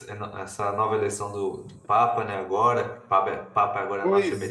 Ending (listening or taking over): taking over